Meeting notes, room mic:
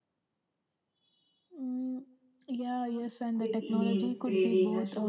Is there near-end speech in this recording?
Yes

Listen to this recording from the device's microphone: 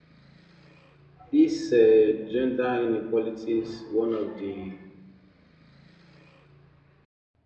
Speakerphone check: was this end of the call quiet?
No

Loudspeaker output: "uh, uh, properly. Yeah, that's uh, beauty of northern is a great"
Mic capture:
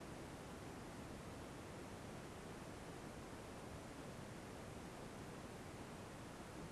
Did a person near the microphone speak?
No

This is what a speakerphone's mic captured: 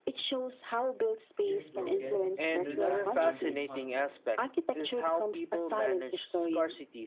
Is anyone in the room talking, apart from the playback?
Yes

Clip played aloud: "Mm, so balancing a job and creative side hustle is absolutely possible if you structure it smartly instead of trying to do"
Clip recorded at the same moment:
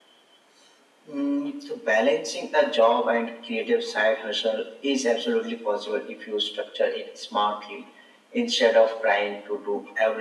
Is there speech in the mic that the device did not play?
No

